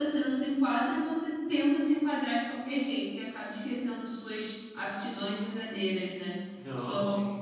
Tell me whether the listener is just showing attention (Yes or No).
Yes